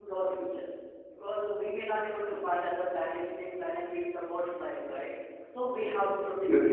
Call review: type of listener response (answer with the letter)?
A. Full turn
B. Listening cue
B